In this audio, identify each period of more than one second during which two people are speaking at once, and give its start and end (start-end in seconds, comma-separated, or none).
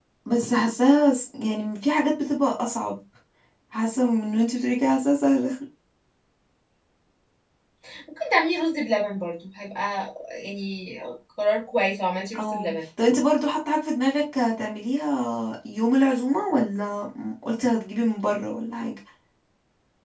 none